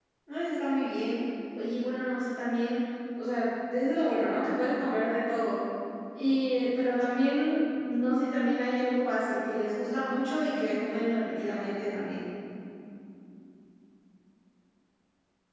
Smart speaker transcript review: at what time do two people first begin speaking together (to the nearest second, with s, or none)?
none